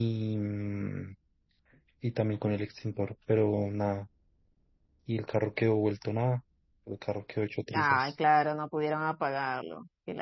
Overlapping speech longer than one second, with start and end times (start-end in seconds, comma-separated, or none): none